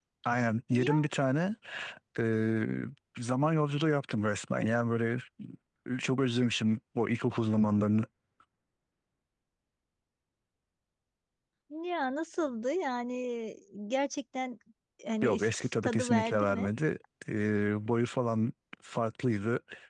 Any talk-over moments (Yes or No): Yes